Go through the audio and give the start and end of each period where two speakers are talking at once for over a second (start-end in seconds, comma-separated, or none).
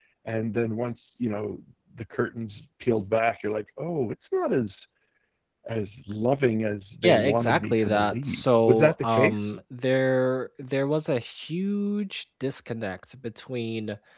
7.0-9.5